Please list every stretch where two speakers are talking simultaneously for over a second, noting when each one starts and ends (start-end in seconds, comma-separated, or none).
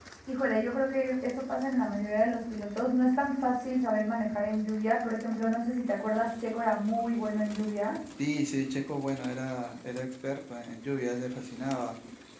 none